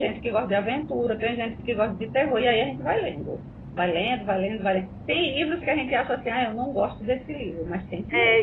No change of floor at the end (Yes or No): No